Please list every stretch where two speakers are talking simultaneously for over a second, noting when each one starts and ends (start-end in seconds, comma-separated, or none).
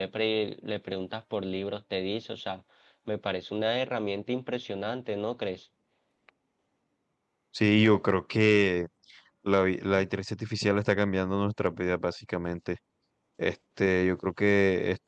none